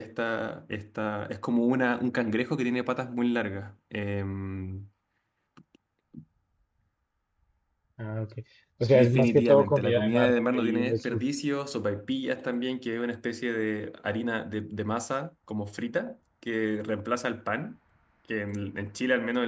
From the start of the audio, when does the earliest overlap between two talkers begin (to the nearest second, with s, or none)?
9 s